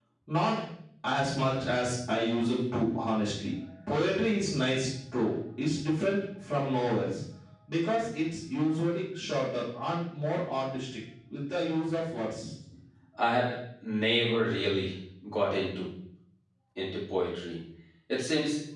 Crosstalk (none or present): none